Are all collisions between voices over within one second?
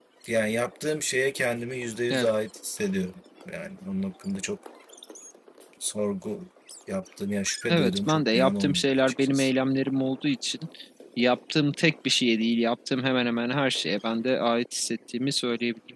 No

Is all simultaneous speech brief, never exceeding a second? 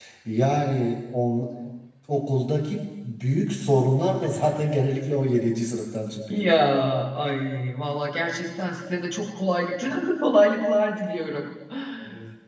Yes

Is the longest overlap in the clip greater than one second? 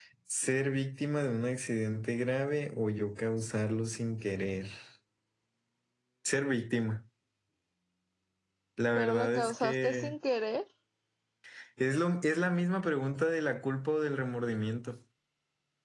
Yes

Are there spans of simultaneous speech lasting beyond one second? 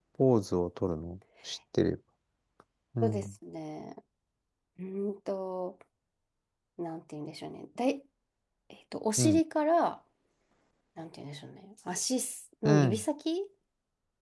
No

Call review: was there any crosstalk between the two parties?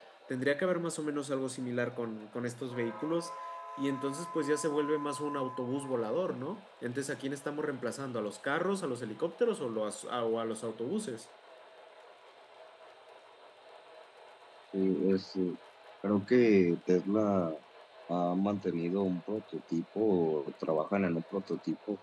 No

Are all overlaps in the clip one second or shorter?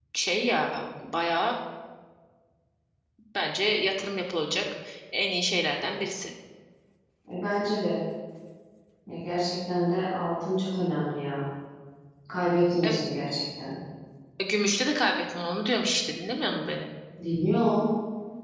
Yes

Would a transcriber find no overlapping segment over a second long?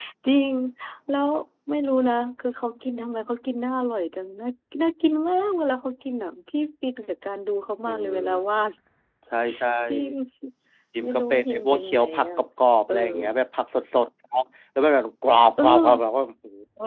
No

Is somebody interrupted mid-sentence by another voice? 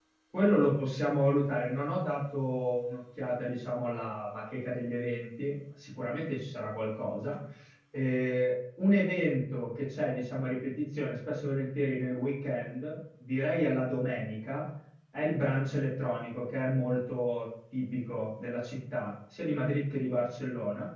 No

